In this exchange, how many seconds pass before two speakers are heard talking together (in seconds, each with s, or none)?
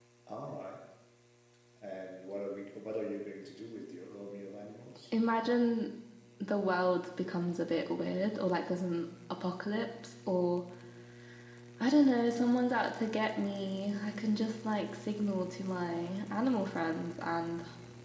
none